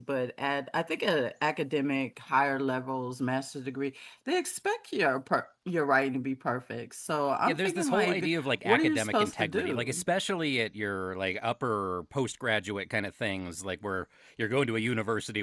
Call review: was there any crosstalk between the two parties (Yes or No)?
Yes